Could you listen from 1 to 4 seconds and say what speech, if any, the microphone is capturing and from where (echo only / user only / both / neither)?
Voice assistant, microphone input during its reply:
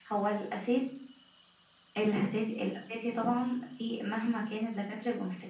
echo only